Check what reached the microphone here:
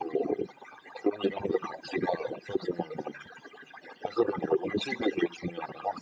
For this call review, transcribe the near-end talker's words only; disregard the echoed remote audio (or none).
none